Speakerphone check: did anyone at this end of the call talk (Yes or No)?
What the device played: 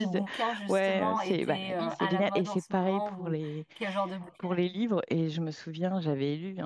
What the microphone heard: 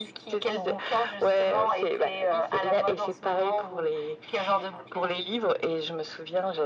No